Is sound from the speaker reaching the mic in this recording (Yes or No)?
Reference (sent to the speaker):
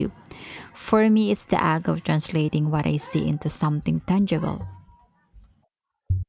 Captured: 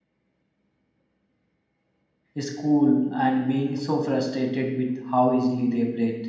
No